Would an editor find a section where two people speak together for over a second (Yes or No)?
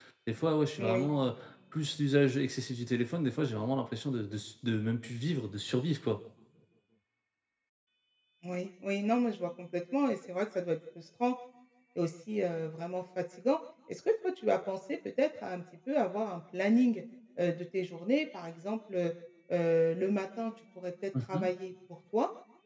No